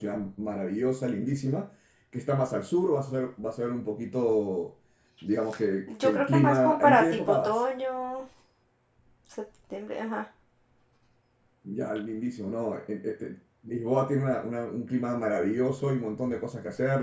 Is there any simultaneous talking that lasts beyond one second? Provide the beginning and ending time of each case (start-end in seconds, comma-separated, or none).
6.0-7.6